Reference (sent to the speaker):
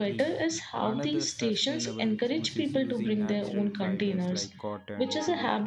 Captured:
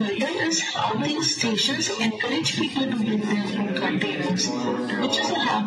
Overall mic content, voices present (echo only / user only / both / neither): both